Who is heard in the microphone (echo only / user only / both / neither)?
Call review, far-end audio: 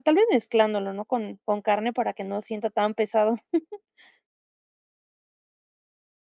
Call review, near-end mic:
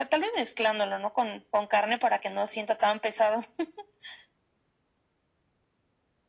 echo only